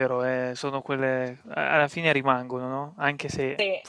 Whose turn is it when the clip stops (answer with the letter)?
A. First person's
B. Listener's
A